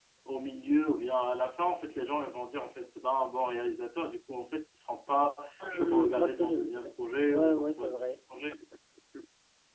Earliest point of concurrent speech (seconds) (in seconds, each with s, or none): 5.7 s